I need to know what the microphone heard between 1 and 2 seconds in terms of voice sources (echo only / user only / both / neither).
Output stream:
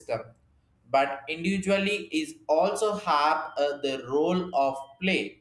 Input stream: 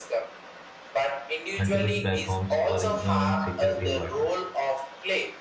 both